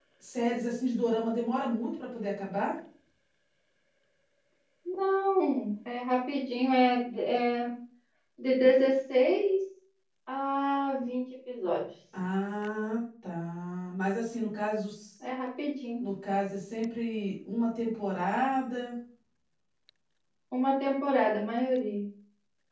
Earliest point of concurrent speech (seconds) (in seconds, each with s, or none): none